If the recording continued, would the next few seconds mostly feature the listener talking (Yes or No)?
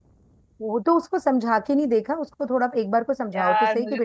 Yes